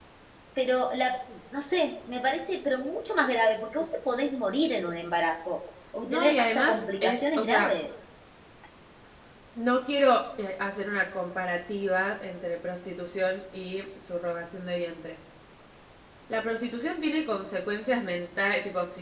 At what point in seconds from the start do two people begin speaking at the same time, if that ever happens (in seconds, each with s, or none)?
6.1 s